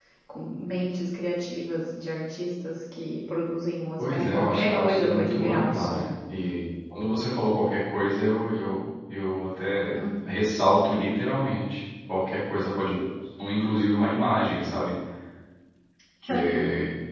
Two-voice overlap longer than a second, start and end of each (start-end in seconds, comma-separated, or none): 4.0-6.1